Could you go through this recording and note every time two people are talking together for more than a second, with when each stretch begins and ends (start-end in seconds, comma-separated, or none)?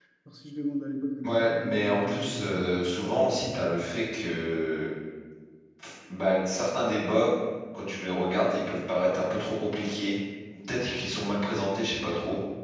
1.2-2.7